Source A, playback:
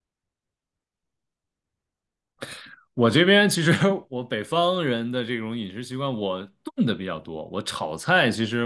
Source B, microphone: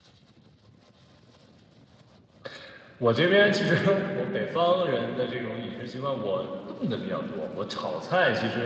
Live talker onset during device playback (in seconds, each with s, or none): none